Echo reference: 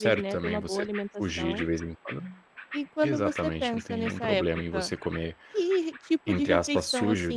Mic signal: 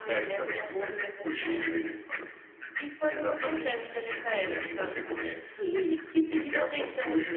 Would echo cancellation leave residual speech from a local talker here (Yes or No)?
No